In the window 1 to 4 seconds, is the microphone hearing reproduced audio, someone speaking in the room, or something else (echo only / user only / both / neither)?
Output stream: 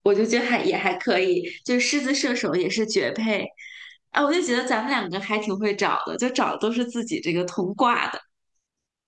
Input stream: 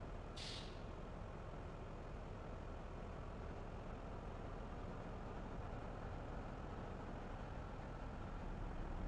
neither